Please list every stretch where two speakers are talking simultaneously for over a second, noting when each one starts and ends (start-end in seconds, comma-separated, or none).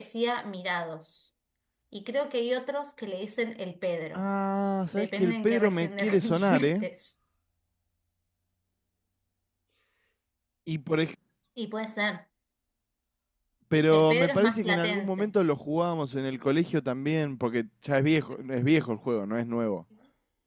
4.9-6.8, 13.9-15.3